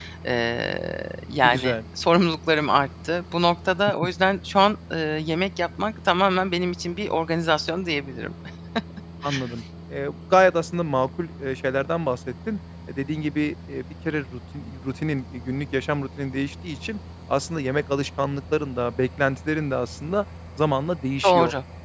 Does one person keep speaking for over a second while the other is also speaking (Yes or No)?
No